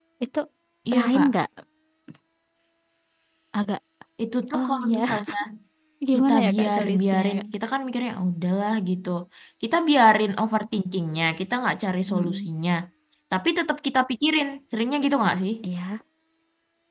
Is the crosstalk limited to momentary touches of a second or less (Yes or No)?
No